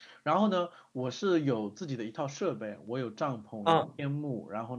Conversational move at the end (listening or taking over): listening